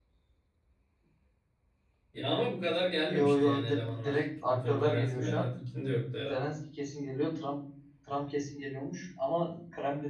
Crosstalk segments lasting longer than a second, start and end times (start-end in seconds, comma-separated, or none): 3.1-5.5